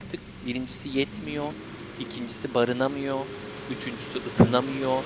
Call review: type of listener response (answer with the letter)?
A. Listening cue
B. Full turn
A